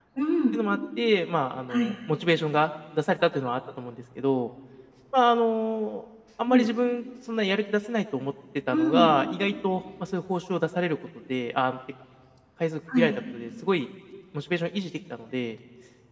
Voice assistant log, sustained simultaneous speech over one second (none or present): none